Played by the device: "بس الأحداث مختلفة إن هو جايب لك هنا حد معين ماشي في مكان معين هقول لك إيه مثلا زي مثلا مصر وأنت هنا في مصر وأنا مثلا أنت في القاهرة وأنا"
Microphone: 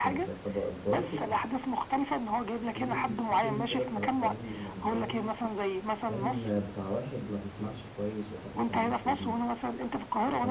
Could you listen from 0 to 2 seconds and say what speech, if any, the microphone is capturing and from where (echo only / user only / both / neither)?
both